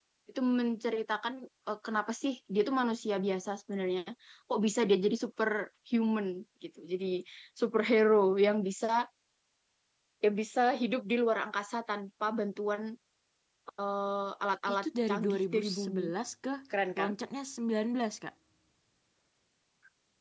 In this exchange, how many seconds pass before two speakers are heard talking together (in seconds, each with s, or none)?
14.7 s